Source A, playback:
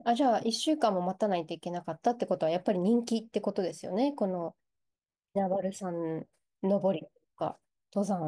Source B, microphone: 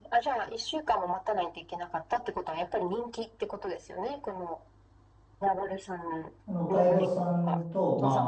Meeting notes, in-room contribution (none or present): present